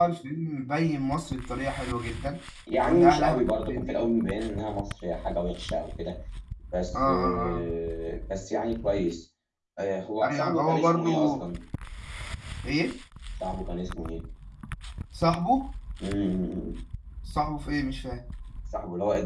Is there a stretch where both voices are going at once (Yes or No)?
Yes